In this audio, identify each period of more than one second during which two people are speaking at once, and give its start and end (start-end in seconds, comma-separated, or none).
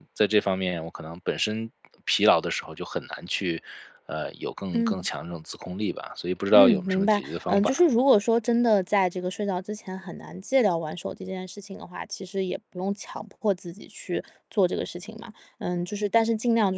6.5-7.8